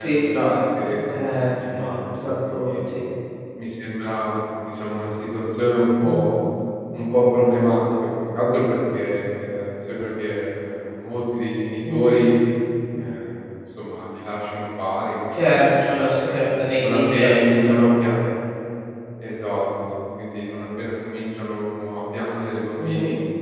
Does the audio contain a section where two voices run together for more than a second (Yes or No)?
Yes